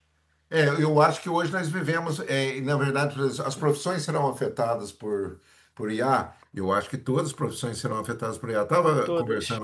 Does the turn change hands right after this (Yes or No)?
No